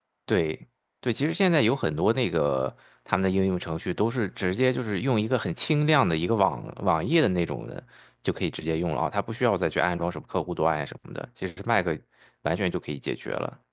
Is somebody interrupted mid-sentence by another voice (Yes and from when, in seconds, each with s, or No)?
No